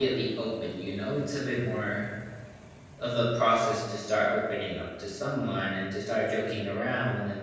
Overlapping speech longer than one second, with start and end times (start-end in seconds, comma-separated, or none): none